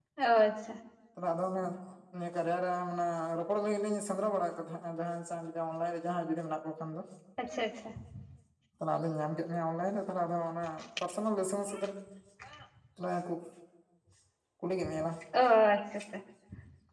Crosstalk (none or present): none